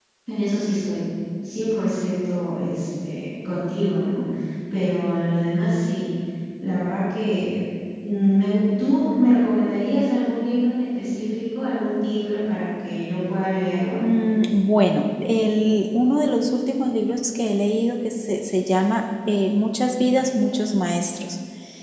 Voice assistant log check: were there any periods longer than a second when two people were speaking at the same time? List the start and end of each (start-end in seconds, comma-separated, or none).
none